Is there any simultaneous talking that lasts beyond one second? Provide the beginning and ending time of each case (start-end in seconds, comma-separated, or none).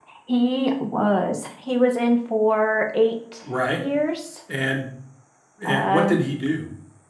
none